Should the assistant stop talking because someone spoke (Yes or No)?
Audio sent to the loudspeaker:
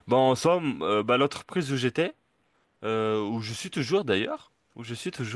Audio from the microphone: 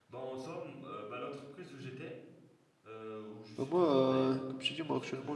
Yes